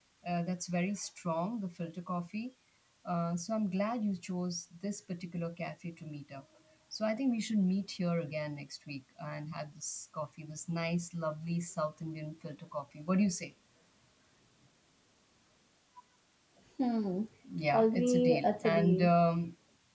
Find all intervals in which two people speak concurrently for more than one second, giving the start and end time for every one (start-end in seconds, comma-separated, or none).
17.7-19.1